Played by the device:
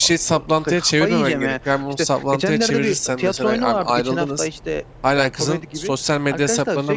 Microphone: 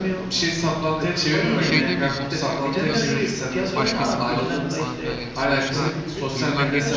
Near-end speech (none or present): present